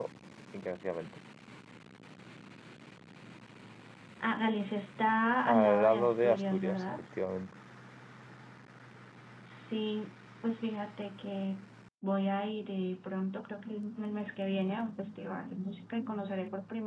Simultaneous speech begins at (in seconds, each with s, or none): 5.5 s